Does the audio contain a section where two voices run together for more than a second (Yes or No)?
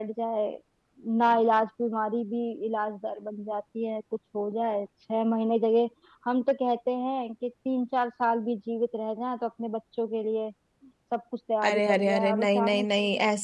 Yes